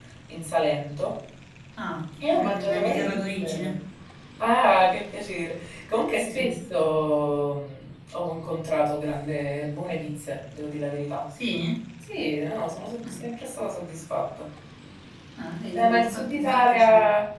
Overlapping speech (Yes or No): Yes